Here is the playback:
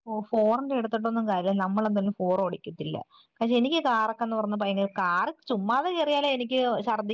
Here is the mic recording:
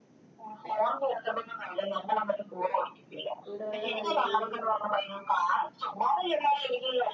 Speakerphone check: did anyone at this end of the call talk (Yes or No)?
Yes